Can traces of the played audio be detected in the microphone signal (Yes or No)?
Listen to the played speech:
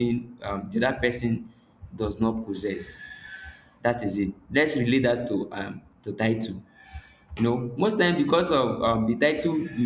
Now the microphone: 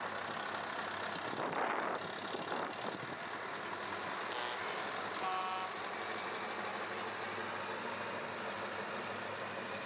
No